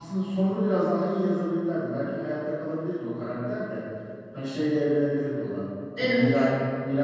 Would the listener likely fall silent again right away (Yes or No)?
Yes